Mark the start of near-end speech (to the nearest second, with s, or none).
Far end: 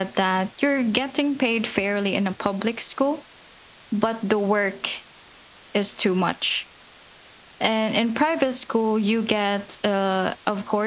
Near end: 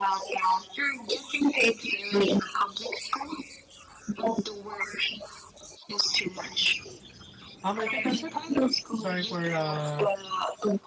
8 s